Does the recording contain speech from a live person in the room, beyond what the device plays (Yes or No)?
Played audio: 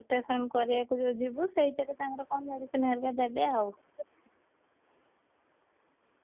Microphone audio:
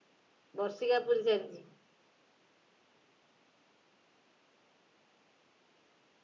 Yes